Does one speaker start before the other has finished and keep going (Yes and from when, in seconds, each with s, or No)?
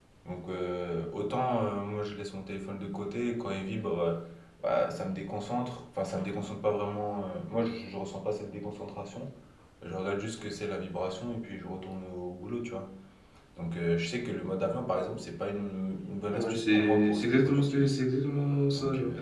Yes, from 16.3 s